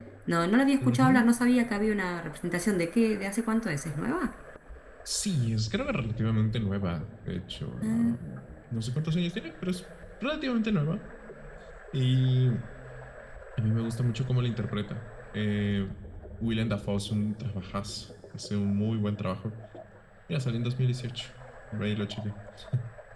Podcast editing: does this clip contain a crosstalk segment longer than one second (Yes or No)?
No